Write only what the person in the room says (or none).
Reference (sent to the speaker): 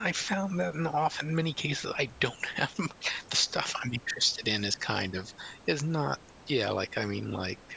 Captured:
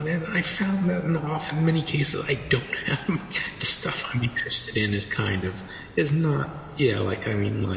none